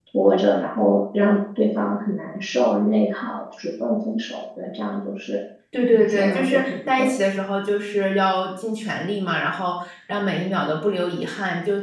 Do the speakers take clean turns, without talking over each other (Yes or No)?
No